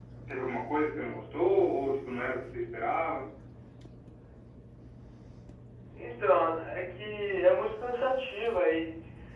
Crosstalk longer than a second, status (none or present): none